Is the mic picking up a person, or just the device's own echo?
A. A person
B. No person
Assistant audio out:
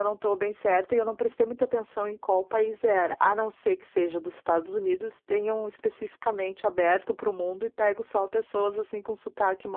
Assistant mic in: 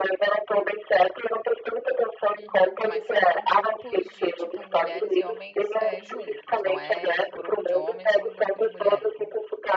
A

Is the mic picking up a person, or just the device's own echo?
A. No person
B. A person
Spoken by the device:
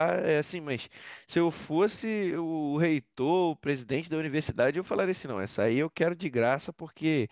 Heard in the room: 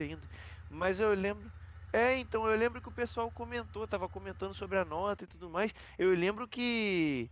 B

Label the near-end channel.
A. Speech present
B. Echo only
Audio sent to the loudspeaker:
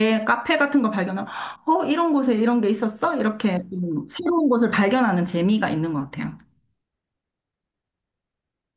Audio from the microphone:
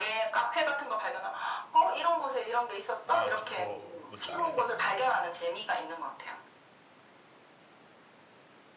A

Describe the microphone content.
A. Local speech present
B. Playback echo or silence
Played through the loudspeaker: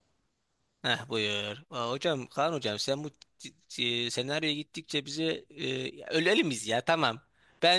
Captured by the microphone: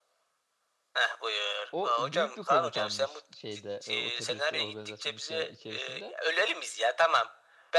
A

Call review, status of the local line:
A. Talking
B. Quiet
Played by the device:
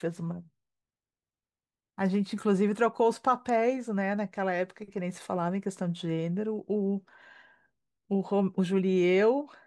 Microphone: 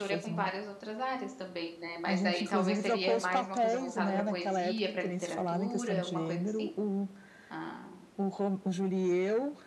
A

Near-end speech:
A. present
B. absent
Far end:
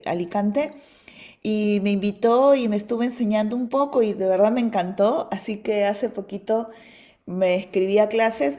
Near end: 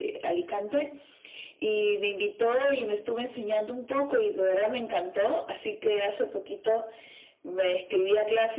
B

